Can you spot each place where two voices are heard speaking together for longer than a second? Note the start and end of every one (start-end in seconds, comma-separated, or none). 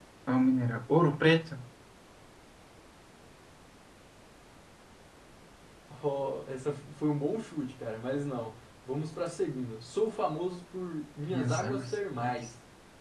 11.3-12.5